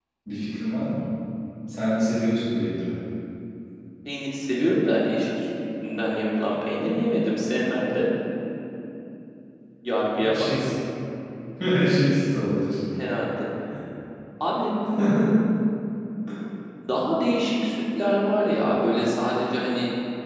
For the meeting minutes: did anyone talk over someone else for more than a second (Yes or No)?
No